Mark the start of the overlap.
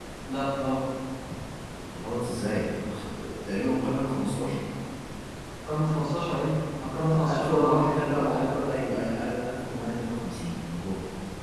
7.1 s

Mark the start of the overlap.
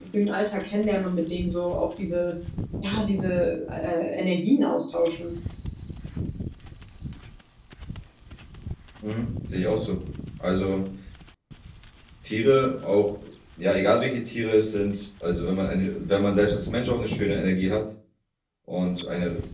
none

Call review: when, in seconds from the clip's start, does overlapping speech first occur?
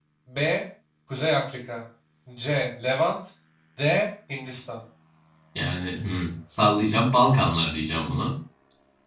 none

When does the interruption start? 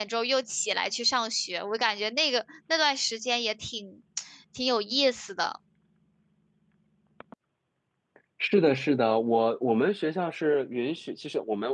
none

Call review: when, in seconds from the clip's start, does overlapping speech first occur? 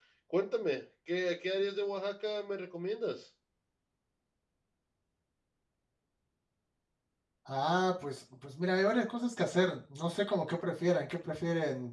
none

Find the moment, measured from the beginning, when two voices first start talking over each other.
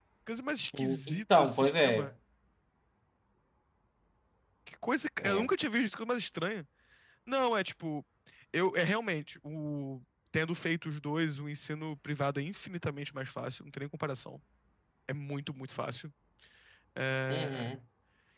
0.8 s

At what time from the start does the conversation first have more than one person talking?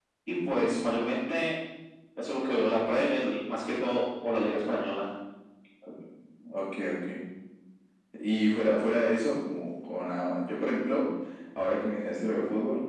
none

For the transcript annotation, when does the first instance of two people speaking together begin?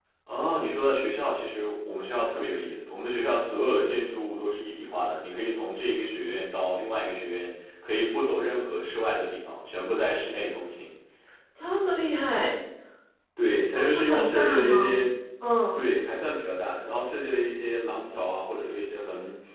13.8 s

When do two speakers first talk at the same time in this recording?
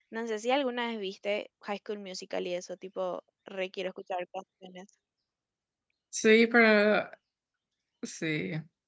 none

